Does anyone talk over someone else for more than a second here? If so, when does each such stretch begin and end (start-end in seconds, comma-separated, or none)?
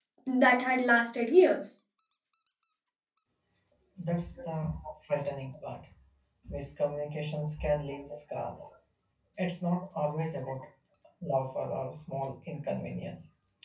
none